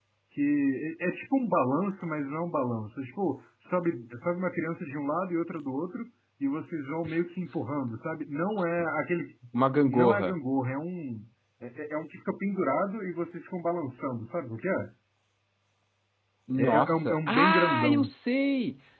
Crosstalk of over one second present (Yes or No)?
Yes